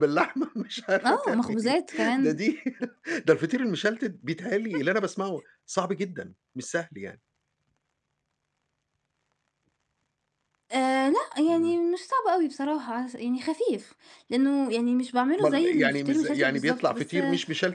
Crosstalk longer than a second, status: present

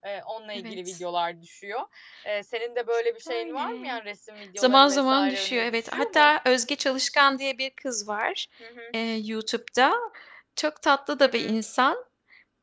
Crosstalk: present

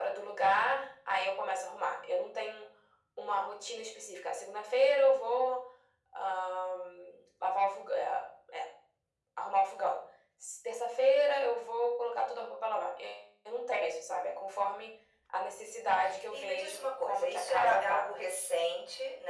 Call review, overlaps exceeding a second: present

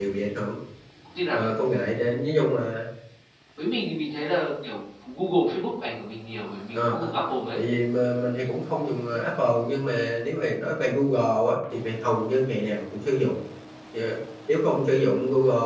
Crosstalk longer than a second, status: none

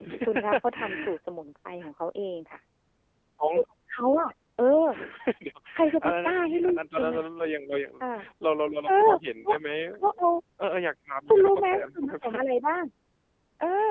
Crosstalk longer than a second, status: present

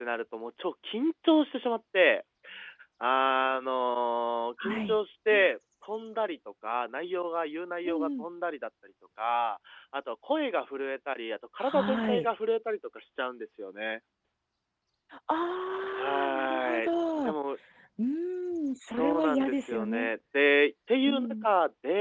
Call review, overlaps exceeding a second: present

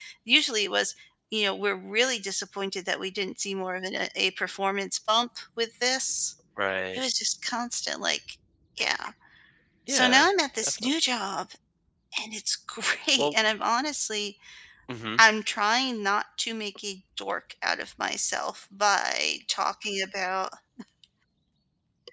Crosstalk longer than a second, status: none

